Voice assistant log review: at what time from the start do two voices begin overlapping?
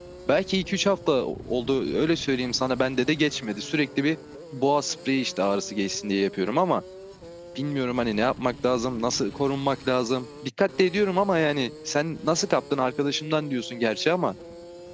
none

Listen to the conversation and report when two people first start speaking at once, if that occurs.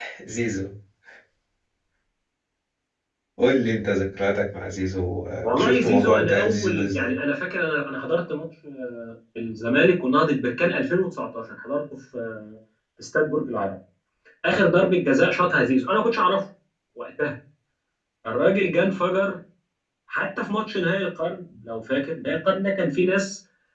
5.4 s

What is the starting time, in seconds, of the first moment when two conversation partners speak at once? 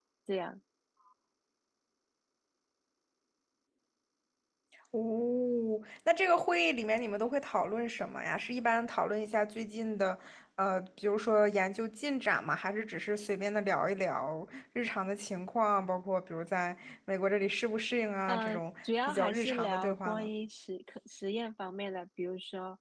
18.3 s

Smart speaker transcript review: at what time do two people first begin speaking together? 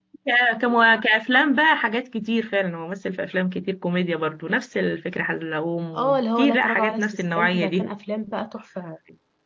5.9 s

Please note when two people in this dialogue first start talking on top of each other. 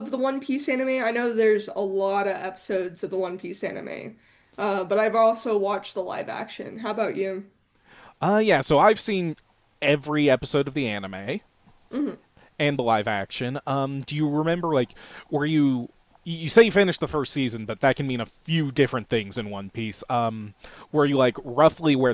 none

